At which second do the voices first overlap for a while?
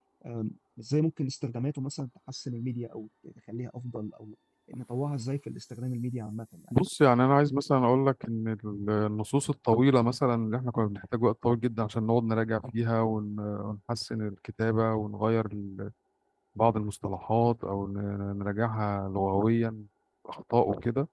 none

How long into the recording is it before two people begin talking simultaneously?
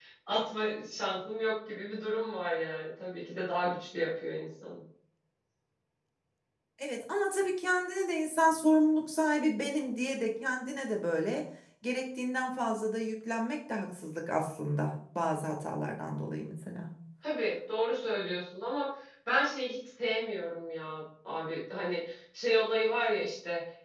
none

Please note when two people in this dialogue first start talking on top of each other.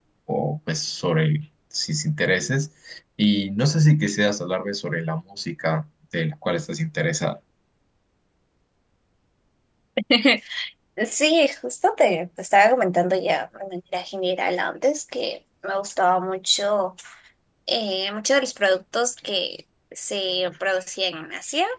none

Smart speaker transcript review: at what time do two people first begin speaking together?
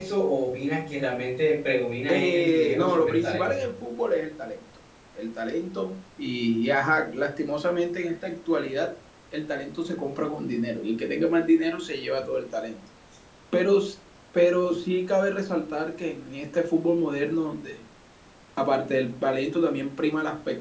2.1 s

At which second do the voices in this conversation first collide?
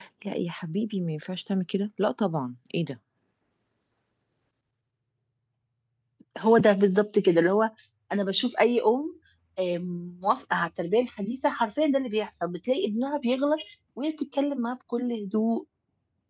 none

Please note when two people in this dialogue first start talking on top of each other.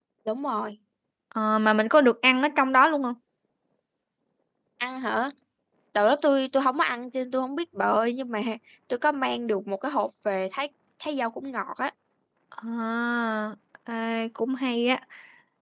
none

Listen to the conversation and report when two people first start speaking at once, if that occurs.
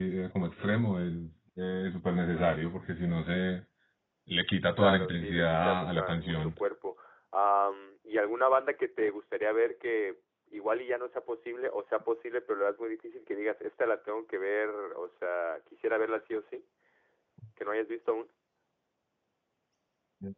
4.8 s

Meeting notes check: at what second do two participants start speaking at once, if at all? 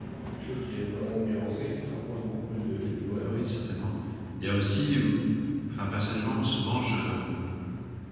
none

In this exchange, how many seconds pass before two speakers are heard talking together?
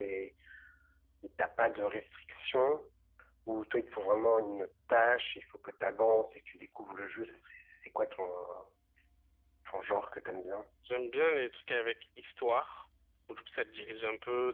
none

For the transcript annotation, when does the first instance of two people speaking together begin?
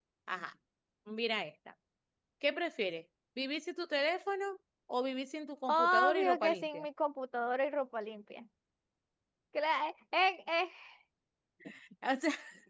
5.7 s

